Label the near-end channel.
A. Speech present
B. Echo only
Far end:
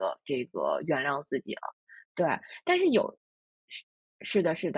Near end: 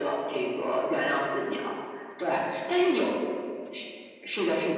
B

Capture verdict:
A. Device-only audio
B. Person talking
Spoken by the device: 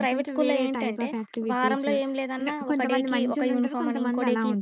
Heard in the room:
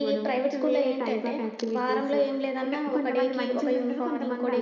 A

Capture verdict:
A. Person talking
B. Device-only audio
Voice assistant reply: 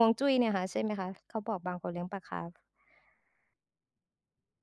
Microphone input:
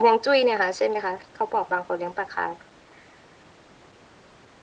B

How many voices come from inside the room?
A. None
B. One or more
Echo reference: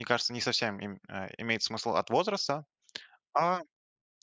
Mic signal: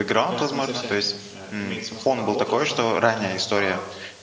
B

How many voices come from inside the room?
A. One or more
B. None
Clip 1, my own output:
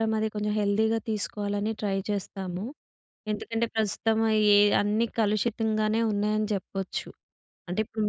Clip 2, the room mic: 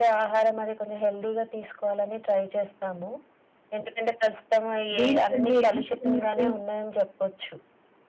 A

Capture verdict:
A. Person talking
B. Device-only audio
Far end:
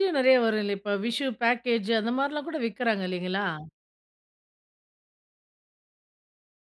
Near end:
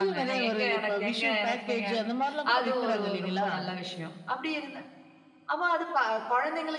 A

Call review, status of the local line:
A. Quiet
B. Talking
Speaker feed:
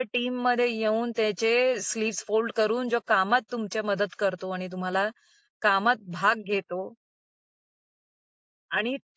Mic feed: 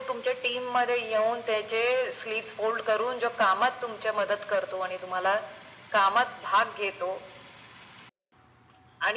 A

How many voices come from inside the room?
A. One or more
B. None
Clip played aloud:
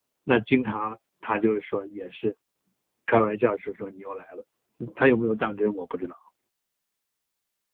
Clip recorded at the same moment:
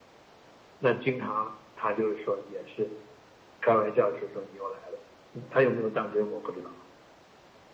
B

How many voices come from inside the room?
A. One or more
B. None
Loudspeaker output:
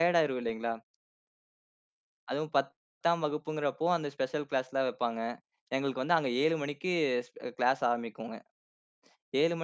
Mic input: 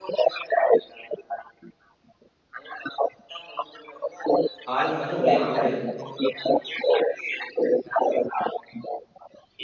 A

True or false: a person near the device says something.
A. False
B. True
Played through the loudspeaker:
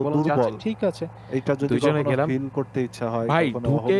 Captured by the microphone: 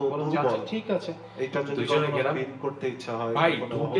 A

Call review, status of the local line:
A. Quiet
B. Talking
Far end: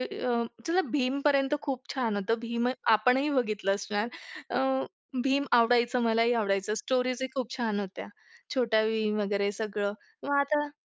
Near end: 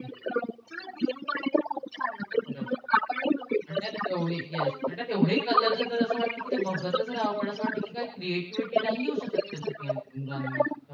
B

